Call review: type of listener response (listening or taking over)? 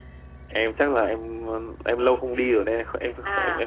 taking over